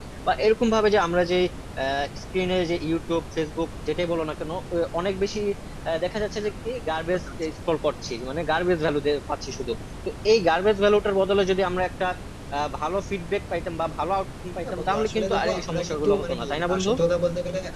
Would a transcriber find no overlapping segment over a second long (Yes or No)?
No